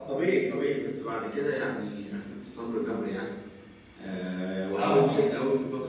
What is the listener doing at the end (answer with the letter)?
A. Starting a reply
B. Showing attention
B